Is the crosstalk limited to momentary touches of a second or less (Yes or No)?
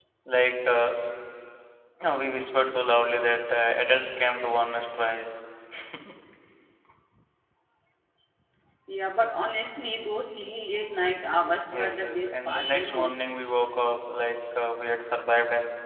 No